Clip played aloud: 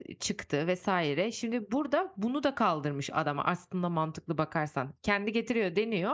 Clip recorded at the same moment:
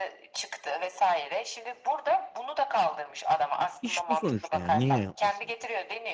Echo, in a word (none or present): present